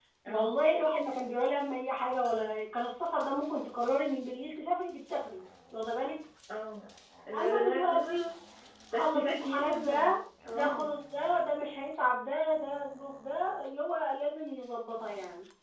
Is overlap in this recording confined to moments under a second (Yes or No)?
No